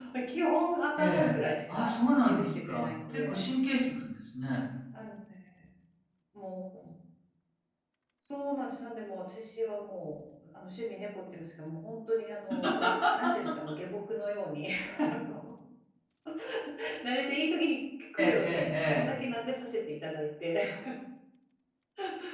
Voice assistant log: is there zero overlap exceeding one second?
No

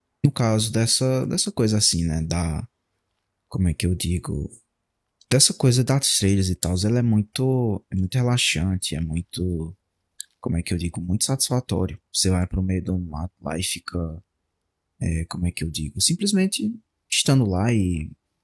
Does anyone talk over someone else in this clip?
No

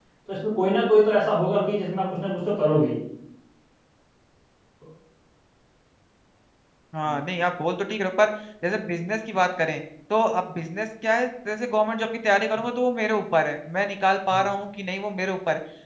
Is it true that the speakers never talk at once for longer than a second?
Yes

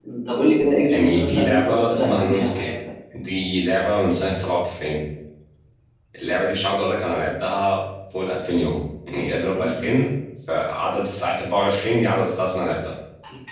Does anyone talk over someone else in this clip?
Yes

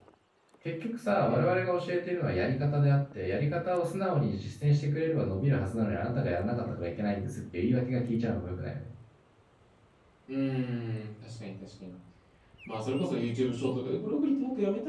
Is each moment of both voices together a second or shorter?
Yes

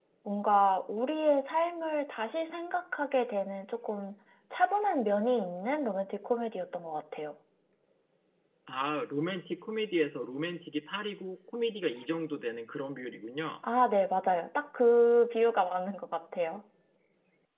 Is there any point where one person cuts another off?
No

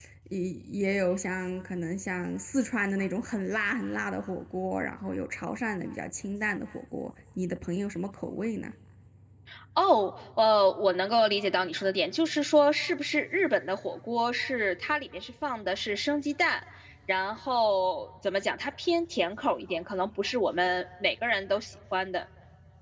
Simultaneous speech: No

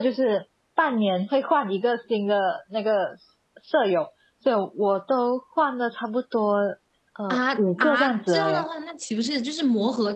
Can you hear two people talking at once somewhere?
Yes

